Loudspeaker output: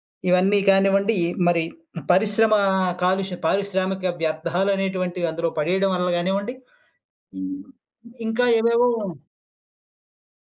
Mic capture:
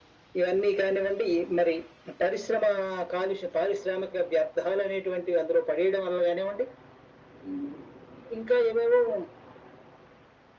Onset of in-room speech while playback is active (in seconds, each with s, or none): none